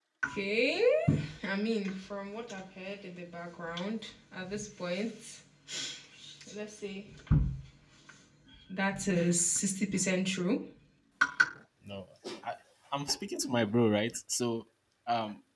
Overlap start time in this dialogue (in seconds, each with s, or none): none